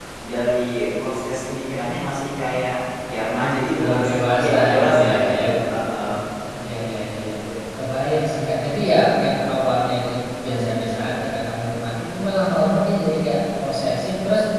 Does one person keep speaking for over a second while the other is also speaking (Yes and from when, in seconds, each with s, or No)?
Yes, from 3.8 s